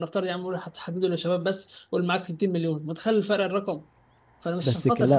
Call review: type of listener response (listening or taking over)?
listening